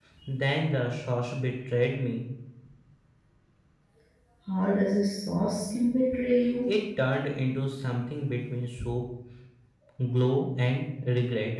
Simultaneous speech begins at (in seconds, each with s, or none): none